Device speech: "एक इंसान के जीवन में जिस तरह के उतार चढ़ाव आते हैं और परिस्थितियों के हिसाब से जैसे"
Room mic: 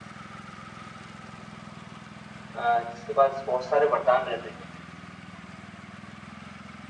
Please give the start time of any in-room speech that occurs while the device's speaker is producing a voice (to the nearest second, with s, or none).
3 s